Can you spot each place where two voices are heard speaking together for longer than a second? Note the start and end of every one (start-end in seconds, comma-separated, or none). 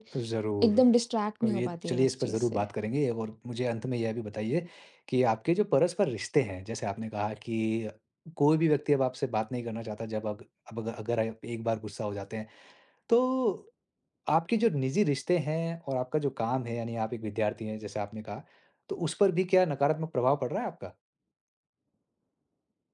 1.4-2.6